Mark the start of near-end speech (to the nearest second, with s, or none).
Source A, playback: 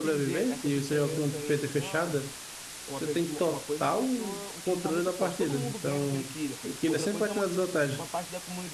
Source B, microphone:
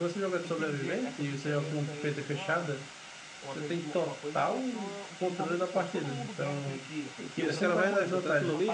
7 s